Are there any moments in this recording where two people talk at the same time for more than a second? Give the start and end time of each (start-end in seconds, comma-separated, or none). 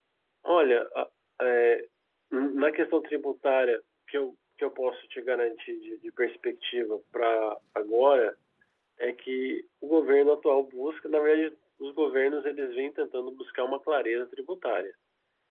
none